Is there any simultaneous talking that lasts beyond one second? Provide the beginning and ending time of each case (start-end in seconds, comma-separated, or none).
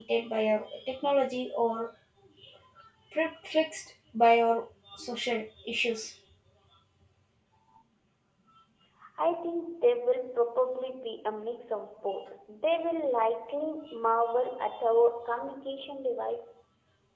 none